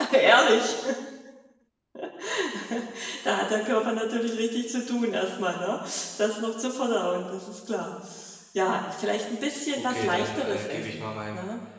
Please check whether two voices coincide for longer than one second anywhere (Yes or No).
Yes